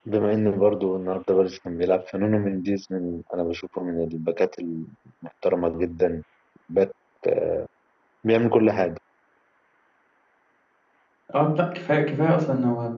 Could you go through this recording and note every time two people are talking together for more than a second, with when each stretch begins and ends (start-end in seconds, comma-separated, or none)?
none